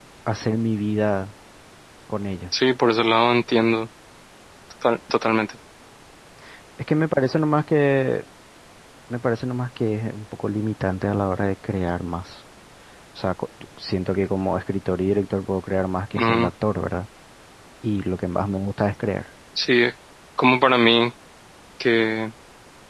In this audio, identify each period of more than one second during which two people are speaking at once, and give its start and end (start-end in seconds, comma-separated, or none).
none